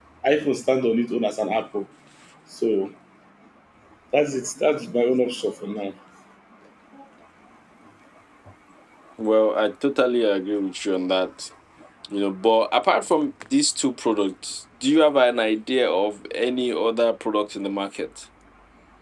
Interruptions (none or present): none